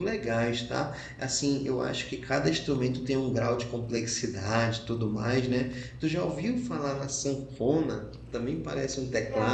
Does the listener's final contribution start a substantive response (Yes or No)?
No